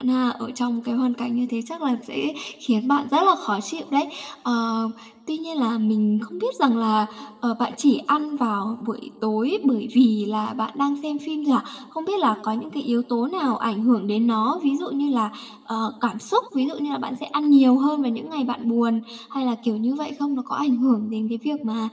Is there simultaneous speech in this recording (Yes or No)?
No